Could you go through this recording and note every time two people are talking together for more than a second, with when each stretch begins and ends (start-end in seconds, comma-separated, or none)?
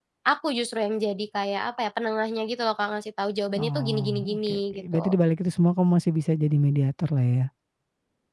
3.6-5.2